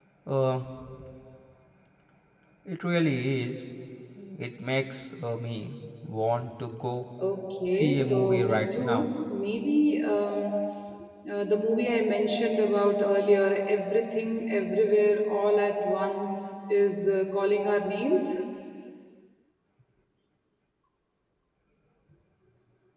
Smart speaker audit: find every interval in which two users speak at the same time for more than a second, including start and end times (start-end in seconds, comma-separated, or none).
7.7-9.1